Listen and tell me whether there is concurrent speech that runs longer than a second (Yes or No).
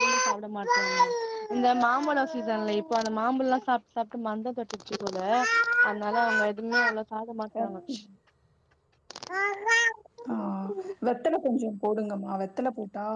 No